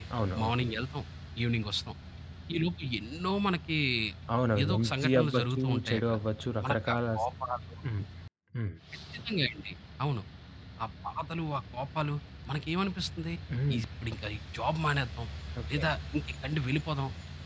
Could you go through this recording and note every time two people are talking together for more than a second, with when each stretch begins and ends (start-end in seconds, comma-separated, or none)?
4.6-6.2